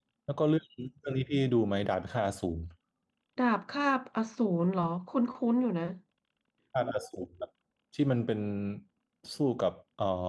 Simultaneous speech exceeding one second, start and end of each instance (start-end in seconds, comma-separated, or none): none